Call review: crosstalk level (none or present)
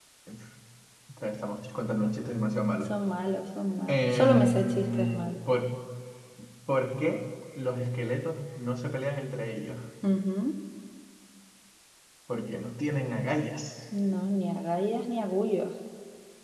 present